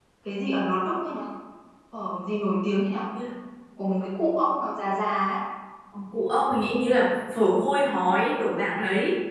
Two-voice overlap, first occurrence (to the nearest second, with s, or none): none